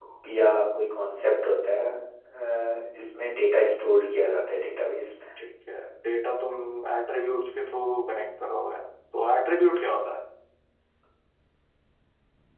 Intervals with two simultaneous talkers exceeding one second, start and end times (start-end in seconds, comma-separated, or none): none